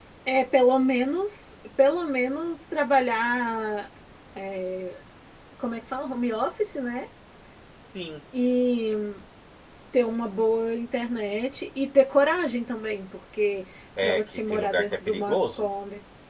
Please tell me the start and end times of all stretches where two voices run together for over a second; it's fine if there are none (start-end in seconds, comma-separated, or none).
14.0-15.7